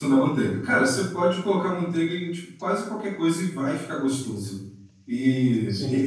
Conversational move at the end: listening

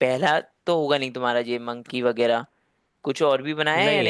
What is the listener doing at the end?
taking over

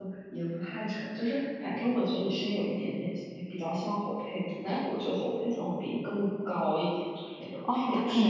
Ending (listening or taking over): taking over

